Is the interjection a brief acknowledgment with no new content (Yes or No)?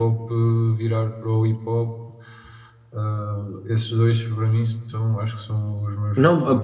No